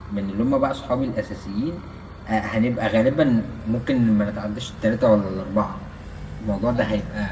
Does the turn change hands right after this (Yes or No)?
No